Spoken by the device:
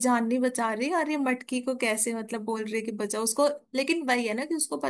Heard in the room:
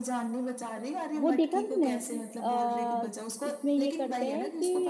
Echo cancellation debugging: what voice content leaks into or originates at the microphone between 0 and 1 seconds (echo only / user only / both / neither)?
echo only